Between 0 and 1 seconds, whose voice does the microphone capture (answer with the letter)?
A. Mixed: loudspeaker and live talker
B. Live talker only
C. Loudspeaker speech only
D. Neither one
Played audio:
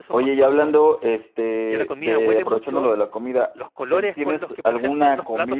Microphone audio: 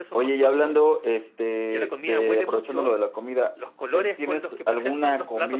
C